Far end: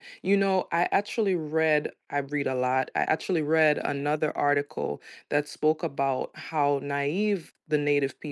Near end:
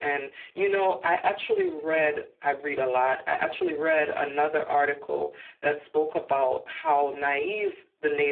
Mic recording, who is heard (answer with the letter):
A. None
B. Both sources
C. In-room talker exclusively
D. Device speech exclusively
D